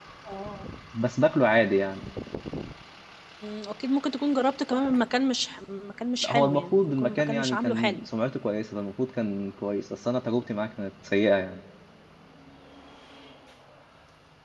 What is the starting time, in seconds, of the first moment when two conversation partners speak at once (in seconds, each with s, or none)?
6.2 s